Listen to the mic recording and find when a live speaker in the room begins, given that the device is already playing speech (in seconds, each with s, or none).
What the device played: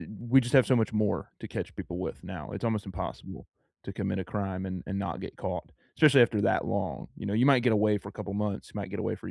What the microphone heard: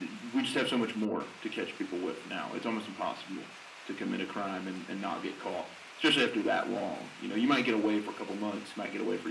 none